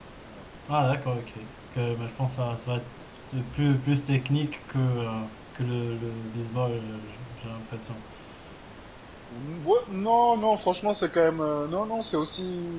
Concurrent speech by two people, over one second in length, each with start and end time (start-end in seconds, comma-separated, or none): none